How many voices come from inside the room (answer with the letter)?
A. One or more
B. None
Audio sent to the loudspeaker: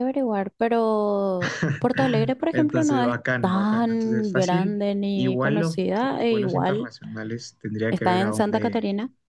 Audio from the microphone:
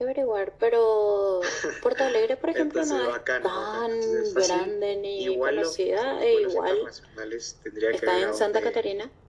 B